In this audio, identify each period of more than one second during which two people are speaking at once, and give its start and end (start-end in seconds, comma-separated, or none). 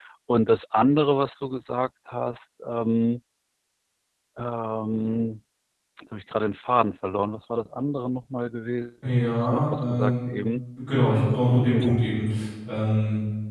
9.0-10.3